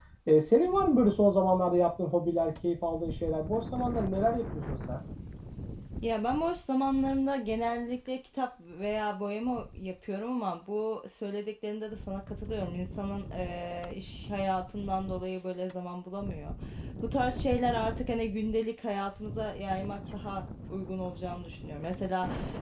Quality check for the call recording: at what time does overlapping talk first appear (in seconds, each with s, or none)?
none